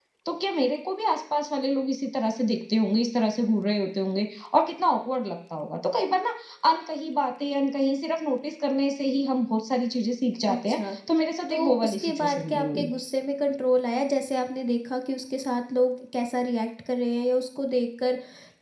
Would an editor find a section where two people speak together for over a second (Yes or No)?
Yes